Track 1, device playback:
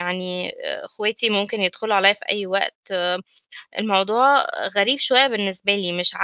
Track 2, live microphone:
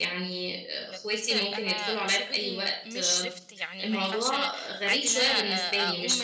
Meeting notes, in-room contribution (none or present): present